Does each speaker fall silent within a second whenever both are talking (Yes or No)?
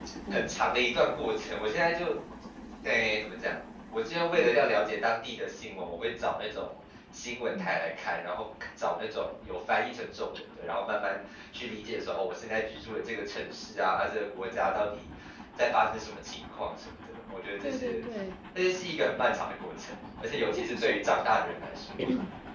Yes